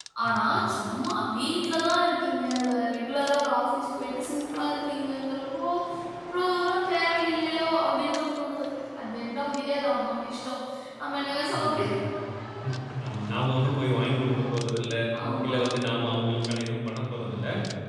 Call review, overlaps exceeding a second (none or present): none